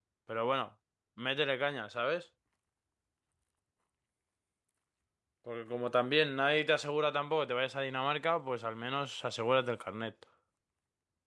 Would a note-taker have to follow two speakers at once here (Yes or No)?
No